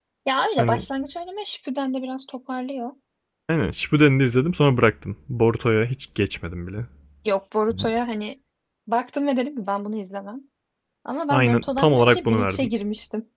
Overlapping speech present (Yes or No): Yes